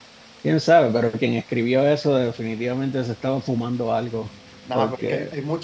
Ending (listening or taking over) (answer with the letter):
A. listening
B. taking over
B